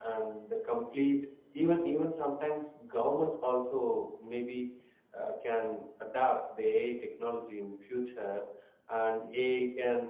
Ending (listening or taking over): listening